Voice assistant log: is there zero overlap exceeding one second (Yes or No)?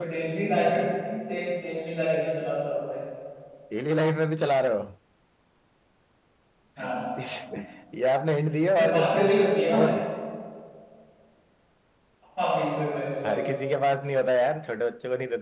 No